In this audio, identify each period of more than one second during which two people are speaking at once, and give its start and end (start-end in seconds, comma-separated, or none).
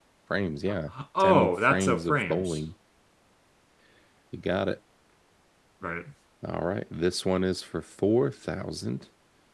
1.2-2.6